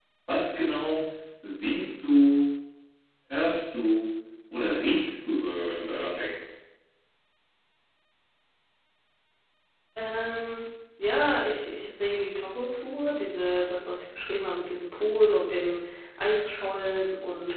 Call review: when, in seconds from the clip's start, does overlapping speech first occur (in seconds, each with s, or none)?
none